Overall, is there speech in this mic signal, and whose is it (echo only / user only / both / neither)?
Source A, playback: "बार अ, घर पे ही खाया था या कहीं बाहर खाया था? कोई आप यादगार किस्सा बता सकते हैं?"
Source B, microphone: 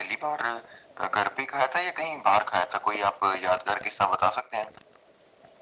echo only